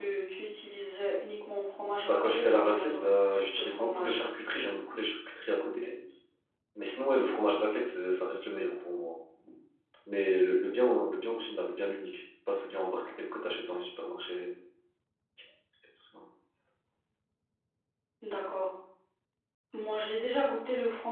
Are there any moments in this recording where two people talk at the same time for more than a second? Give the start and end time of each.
2.0-4.2

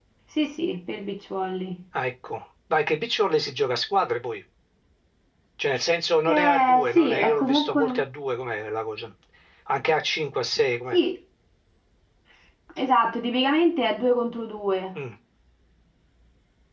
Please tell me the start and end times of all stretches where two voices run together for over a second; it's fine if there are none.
6.3-8.0

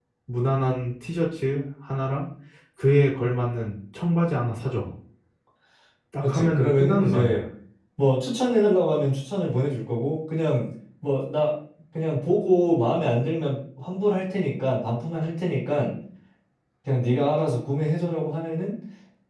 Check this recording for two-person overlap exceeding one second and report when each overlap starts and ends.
6.2-7.4

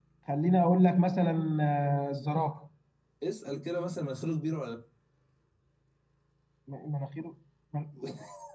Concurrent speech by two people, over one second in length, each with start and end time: none

